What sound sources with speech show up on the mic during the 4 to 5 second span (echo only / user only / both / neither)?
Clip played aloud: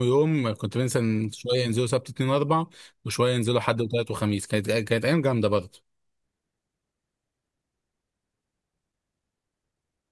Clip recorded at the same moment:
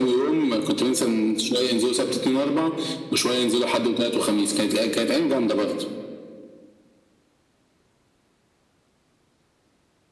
echo only